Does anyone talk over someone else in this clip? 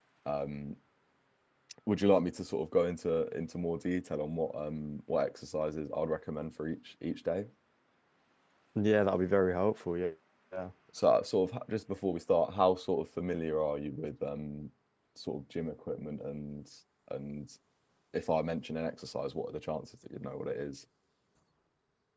No

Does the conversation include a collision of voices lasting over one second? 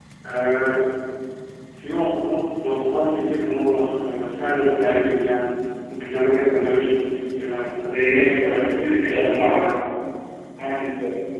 Yes, from 7.8 s

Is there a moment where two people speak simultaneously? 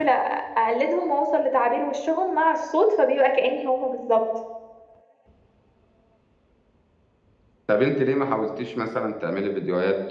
No

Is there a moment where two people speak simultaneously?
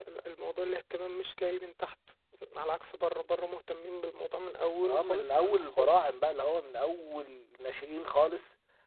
Yes, from 4.8 s

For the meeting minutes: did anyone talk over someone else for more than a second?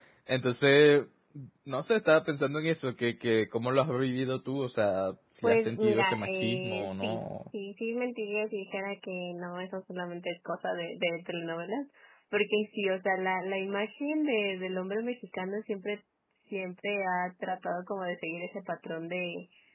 Yes, from 5.4 s

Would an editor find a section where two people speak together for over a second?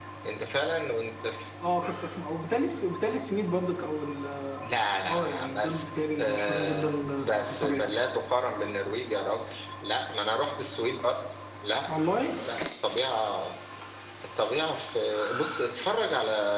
Yes, from 5.1 s

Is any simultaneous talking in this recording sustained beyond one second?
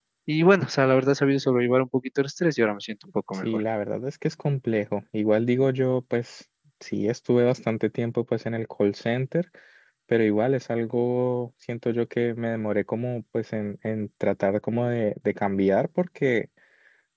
No

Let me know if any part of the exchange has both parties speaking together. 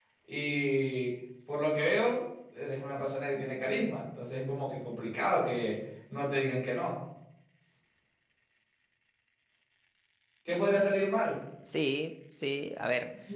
No

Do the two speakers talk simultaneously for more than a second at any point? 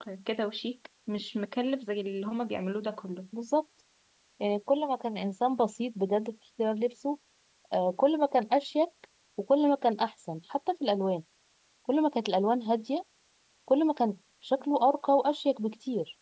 No

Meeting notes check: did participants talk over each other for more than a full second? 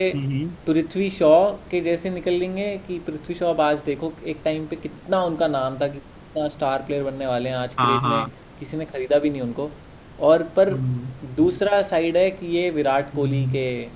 No

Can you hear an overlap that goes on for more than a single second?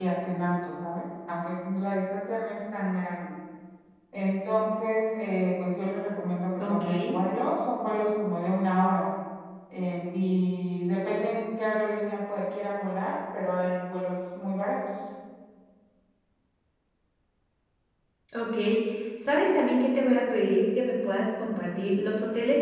No

